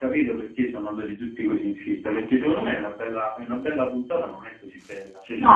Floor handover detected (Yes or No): No